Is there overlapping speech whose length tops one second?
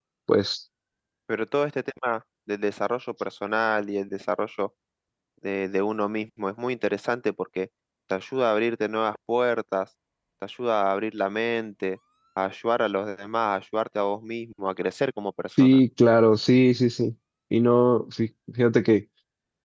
No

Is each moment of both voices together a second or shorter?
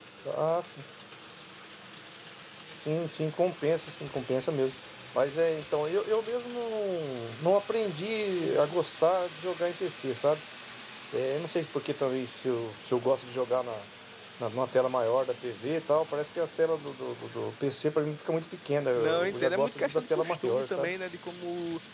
No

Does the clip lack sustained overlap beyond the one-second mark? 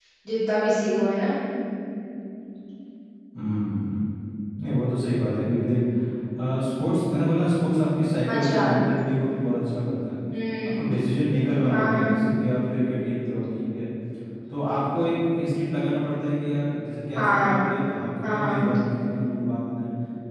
Yes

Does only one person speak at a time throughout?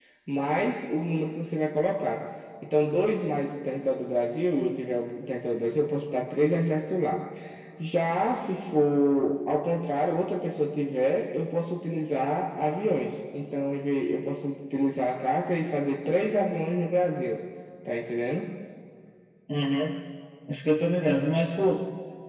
Yes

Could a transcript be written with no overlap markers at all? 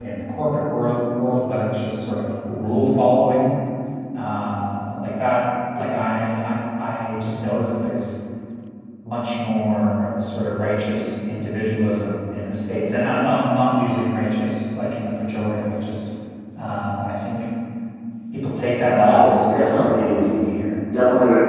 No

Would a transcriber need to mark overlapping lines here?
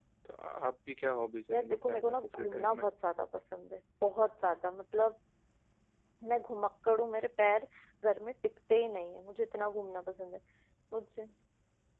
Yes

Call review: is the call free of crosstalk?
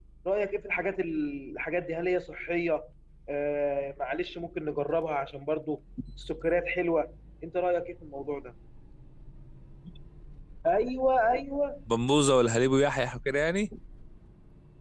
Yes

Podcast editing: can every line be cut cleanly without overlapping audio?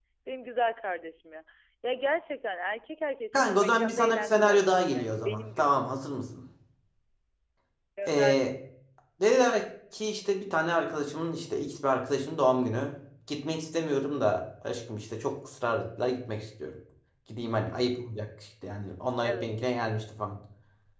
No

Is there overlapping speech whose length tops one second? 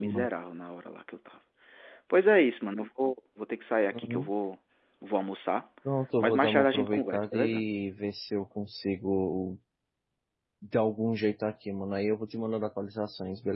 Yes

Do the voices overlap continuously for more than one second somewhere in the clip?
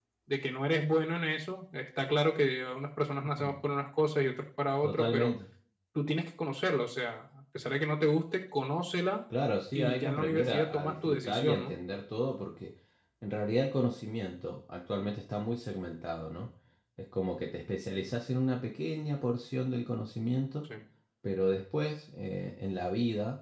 Yes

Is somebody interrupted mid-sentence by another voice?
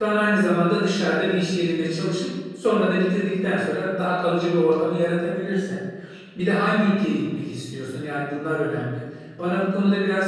No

